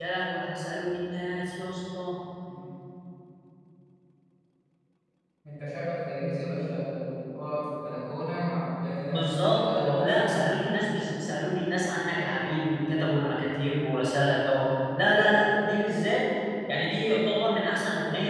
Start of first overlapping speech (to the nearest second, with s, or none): 9 s